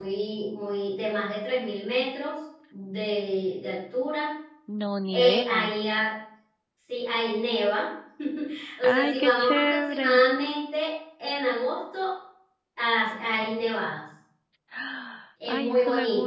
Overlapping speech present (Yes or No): Yes